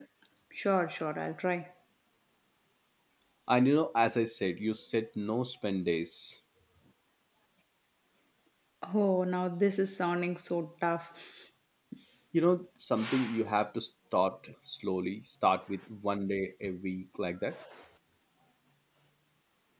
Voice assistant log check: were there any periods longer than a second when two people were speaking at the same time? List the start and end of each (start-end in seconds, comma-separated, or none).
none